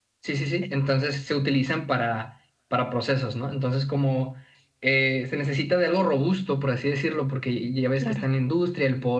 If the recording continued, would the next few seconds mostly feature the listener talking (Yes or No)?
No